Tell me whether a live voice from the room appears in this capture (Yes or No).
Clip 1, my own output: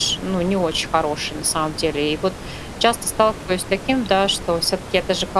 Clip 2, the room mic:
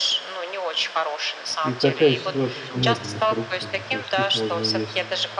Yes